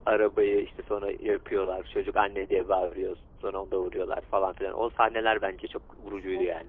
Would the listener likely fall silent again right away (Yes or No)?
No